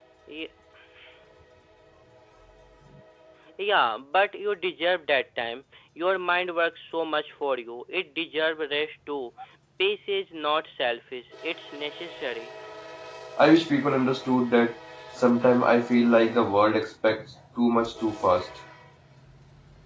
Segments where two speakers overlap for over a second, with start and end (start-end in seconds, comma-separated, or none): none